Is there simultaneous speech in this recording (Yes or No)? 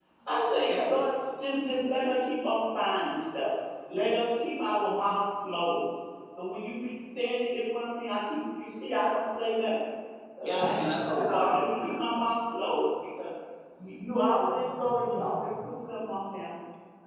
Yes